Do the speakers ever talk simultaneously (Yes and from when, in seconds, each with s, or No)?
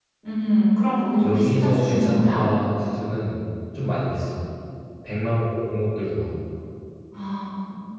Yes, from 1.2 s